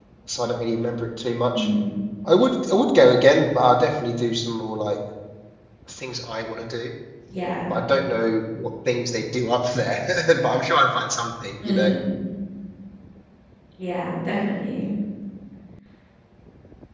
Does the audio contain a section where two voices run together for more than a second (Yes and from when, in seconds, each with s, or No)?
No